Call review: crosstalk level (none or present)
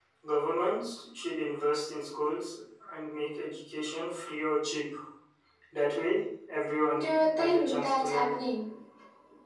present